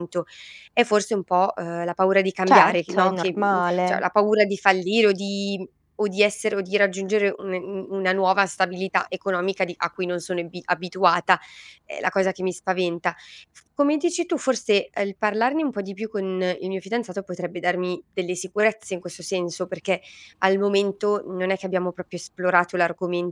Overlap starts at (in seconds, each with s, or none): 2.5 s